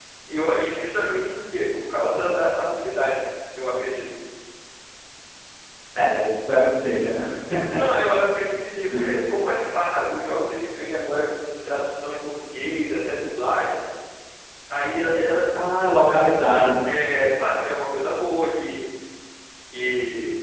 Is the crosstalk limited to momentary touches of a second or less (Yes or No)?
Yes